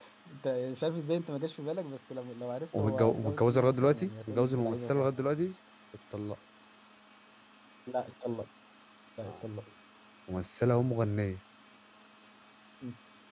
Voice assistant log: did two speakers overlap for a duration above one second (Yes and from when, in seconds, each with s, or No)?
Yes, from 2.7 s